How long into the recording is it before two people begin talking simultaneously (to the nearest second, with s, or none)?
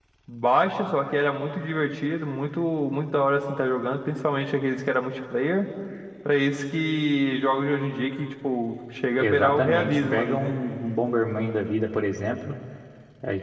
9 s